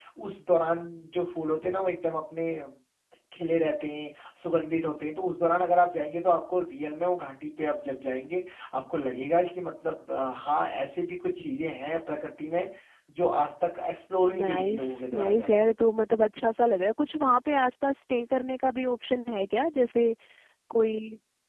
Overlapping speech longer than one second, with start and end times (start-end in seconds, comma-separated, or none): 14.4-15.6